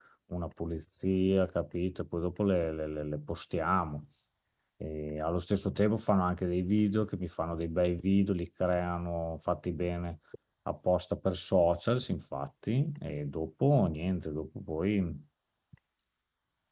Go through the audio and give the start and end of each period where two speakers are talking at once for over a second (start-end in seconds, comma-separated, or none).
none